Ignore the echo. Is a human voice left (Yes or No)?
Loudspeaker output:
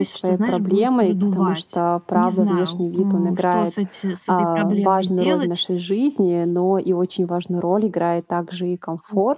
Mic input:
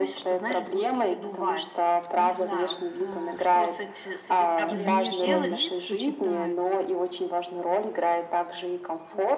Yes